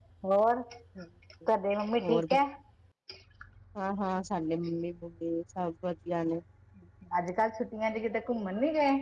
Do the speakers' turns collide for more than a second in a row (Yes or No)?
No